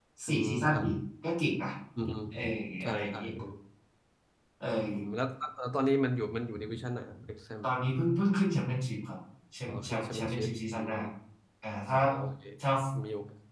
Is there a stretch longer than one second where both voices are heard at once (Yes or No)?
Yes